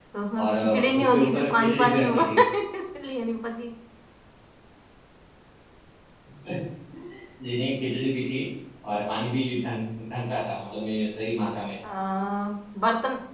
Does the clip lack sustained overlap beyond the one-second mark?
No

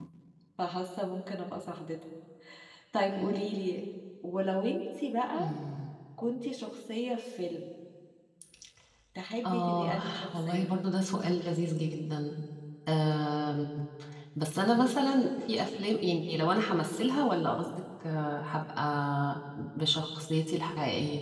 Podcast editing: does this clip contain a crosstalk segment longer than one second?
Yes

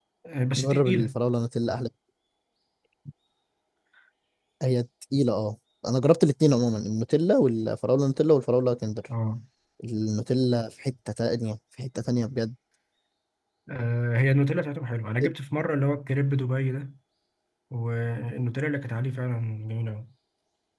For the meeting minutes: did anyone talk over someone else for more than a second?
No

